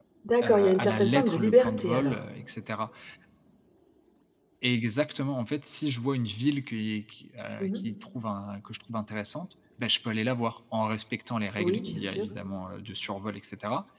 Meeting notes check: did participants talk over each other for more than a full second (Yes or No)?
Yes